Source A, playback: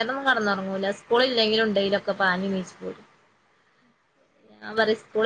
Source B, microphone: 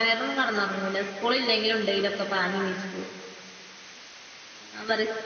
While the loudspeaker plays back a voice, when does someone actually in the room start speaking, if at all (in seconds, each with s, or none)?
none